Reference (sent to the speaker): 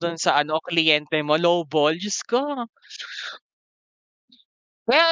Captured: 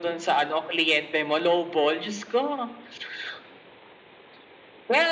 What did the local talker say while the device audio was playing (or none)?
none